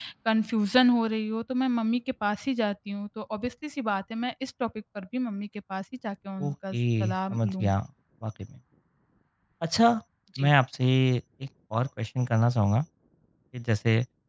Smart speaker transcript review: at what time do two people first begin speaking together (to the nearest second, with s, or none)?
6 s